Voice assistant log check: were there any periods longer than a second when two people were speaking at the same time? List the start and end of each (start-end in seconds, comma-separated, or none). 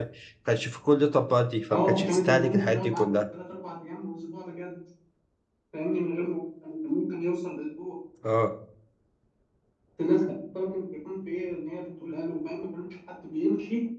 1.7-3.2